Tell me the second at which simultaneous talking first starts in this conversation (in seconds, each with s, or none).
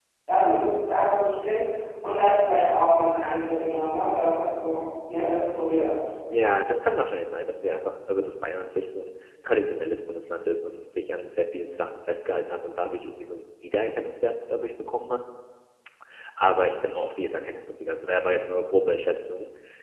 none